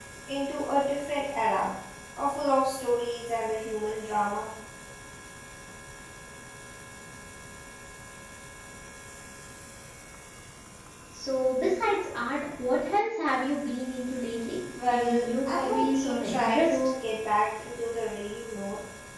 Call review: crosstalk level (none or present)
present